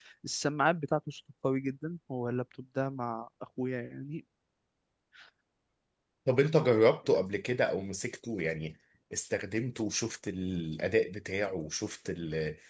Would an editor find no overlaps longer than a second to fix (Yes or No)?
Yes